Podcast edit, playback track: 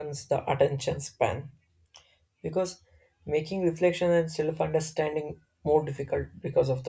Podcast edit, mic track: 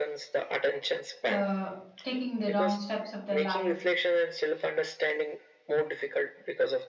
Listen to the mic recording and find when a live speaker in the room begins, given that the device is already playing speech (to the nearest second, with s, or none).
1 s